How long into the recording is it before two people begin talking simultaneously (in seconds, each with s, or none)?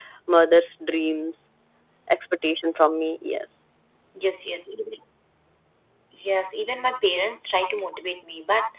none